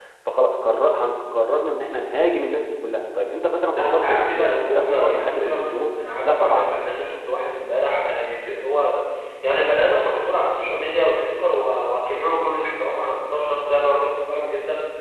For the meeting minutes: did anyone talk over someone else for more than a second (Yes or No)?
Yes